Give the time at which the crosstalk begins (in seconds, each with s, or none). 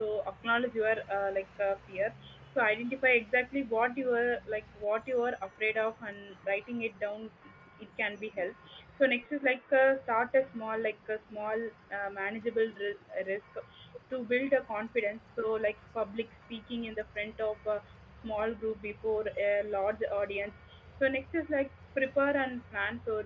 none